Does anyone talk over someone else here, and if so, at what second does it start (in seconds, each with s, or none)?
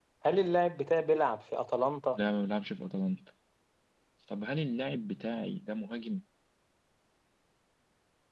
none